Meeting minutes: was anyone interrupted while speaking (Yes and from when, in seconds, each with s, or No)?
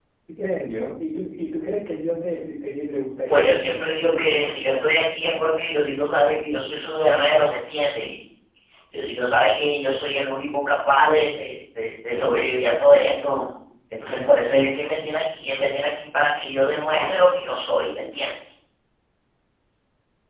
Yes, from 3.3 s